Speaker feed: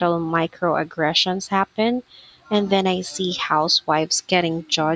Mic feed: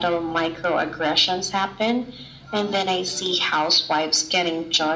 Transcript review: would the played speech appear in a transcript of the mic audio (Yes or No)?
Yes